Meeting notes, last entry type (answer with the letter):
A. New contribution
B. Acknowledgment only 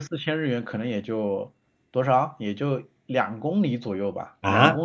A